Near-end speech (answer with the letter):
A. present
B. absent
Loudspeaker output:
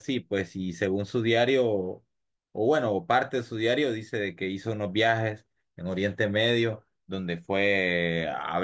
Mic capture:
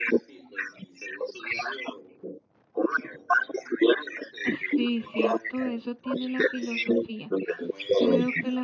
A